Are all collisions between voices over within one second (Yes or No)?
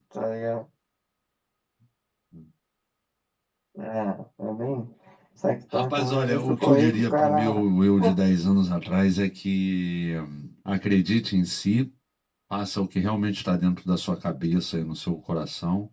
No